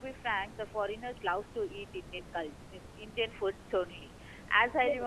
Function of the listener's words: listening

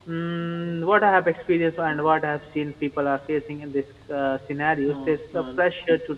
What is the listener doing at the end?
listening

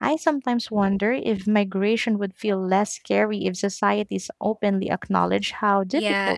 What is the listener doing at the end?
taking over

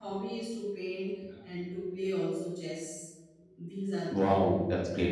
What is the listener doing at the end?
taking over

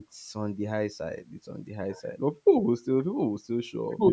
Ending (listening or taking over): taking over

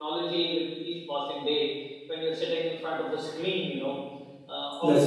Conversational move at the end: listening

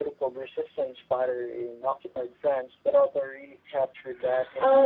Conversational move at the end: taking over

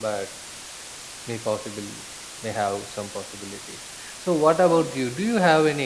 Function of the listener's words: listening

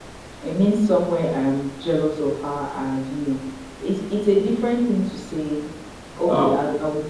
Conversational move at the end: listening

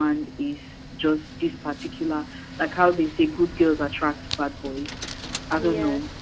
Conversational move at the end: listening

